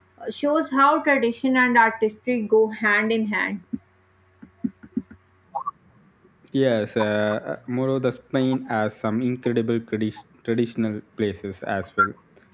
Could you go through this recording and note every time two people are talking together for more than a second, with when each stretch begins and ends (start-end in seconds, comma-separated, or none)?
none